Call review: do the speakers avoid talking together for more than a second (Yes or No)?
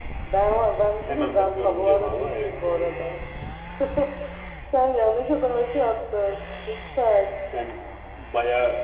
No